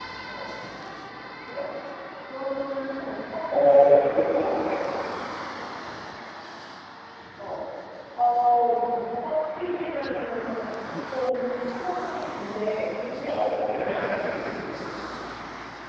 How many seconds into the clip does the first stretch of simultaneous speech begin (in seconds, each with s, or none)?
3.5 s